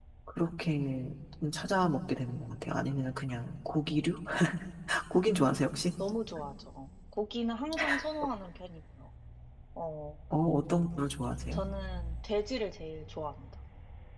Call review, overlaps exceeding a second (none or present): none